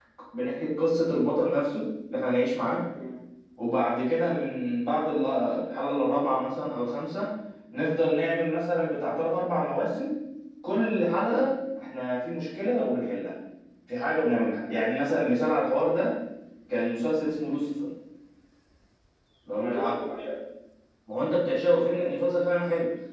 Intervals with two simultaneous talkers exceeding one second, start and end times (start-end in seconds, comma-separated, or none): none